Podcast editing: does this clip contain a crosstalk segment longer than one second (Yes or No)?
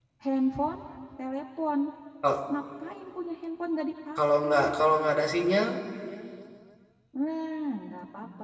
No